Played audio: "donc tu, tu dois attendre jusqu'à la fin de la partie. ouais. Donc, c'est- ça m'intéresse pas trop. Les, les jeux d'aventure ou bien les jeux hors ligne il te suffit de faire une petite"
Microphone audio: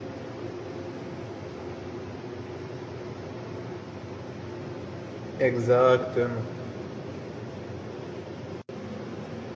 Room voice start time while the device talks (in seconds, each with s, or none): 5.4 s